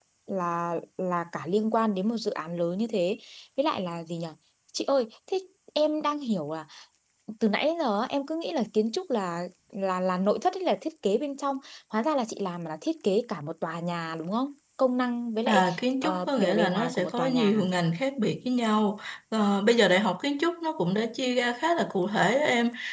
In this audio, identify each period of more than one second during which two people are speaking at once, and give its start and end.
16.0-17.6

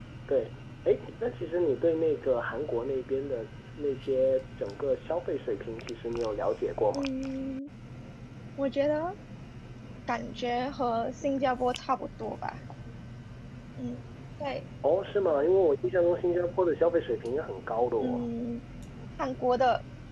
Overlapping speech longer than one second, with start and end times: none

